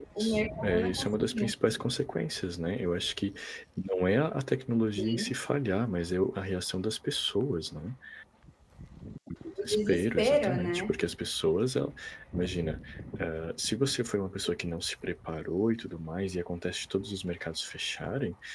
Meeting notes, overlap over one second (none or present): present